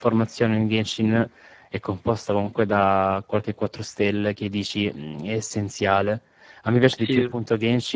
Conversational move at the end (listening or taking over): listening